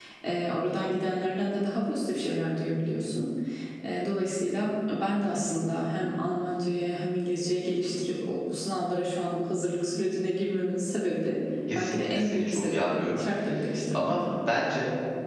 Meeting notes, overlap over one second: present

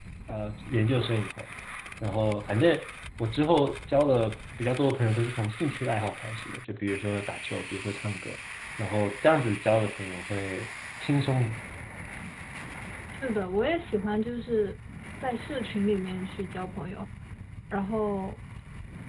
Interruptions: none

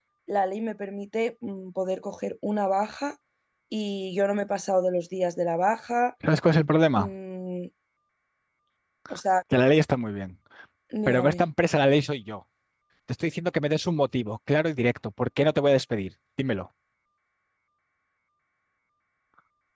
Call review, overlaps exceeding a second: none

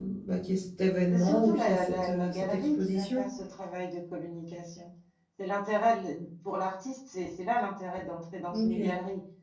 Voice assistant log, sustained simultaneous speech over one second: present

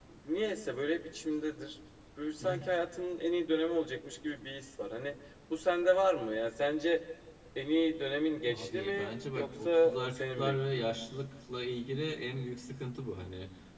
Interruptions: present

